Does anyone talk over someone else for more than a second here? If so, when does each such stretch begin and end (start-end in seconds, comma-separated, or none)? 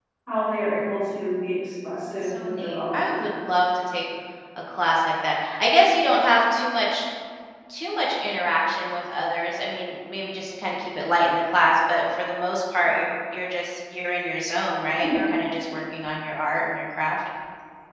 2.0-3.3